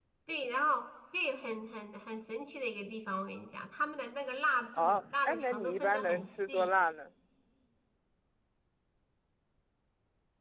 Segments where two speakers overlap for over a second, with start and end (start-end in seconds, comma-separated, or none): 4.7-6.7